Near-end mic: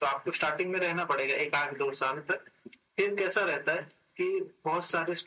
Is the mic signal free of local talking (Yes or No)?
Yes